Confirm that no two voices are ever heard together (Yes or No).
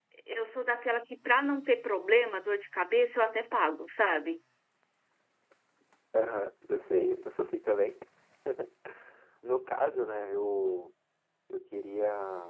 Yes